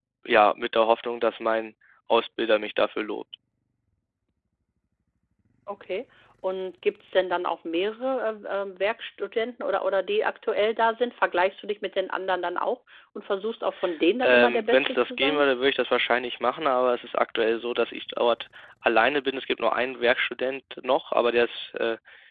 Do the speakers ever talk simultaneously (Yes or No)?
Yes